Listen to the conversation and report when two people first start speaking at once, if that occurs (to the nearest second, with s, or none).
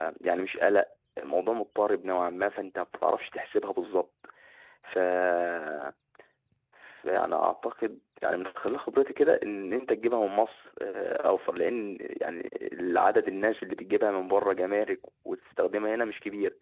none